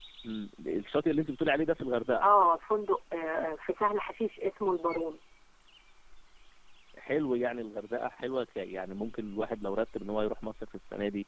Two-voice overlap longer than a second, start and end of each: none

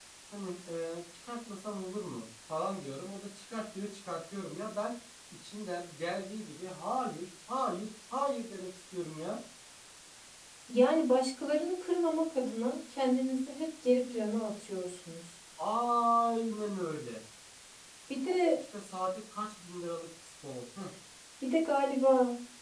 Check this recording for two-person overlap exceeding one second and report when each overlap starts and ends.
none

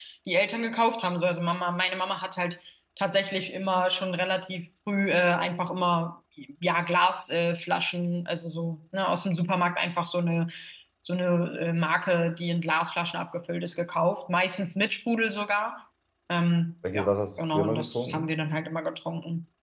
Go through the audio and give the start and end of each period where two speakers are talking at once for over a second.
16.9-18.3

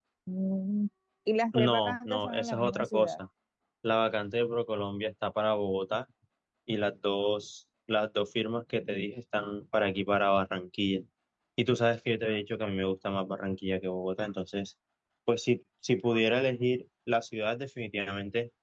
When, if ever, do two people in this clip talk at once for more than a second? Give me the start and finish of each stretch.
1.5-3.2

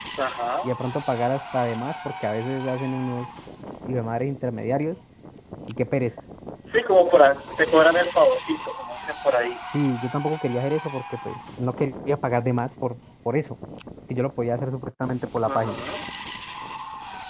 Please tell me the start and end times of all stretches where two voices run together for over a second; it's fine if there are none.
none

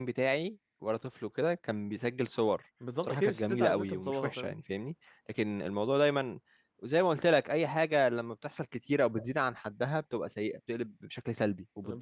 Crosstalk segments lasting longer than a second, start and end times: 3.0-4.6

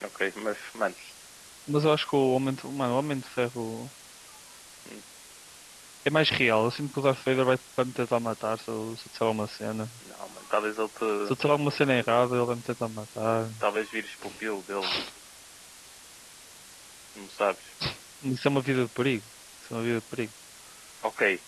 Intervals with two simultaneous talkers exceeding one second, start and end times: none

